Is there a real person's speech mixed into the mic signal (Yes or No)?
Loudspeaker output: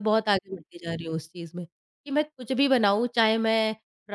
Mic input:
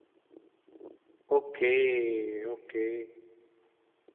Yes